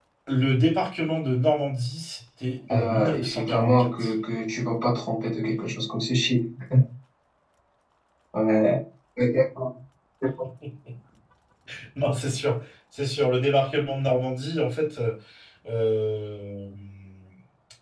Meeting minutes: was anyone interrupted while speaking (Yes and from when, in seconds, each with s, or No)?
Yes, from 2.7 s